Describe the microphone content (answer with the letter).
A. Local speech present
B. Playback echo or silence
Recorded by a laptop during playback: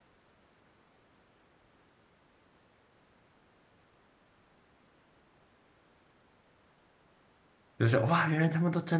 A